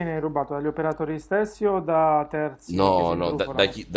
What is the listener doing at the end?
taking over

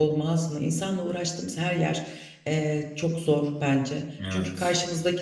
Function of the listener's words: listening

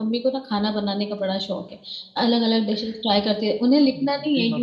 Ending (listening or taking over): listening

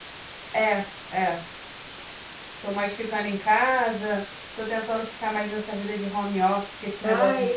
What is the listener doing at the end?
taking over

